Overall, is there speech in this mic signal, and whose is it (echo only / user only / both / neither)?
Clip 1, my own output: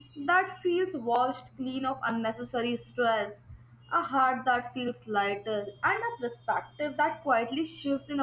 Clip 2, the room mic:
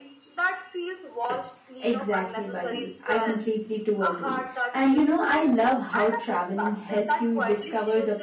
both